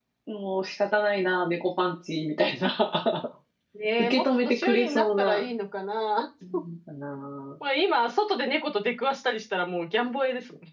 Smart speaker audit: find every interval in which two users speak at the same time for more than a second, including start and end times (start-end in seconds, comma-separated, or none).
4.0-5.4